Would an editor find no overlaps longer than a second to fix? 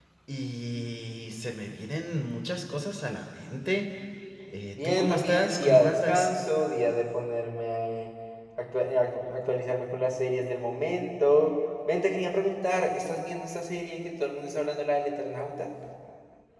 No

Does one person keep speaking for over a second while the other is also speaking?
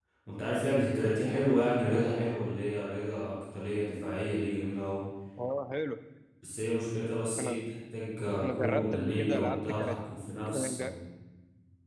Yes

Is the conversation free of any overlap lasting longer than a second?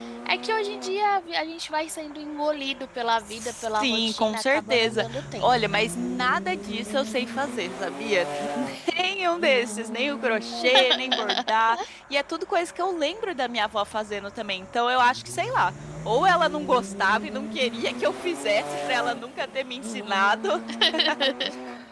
No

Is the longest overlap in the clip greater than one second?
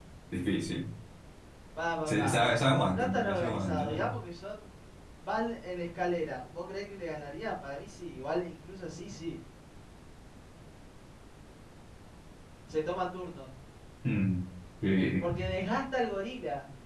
Yes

